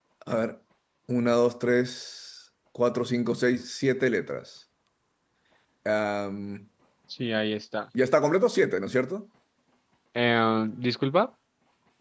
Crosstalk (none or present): none